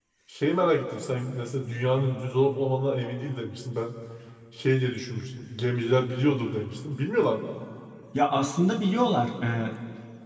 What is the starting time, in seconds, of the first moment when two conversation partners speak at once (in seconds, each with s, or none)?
none